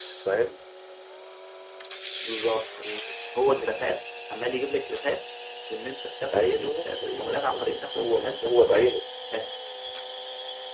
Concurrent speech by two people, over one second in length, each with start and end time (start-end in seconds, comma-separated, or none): 6.3-8.9